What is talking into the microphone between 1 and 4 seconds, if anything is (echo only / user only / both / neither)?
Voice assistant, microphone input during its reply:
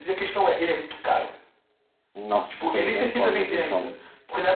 both